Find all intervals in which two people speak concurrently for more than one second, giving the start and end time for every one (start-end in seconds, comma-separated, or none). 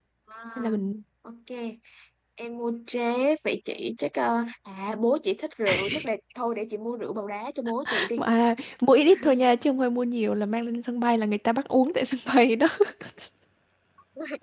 none